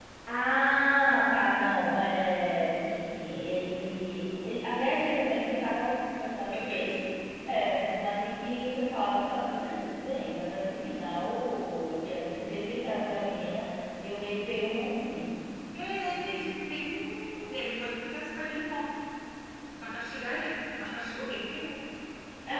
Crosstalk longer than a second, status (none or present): none